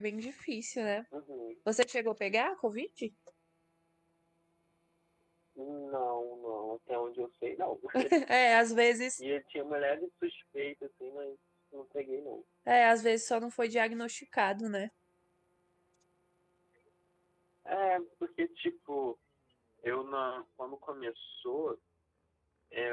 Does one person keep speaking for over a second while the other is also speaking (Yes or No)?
No